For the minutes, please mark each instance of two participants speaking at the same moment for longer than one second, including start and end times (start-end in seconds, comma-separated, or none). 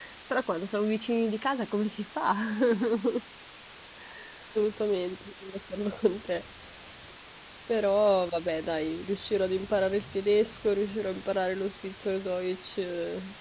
none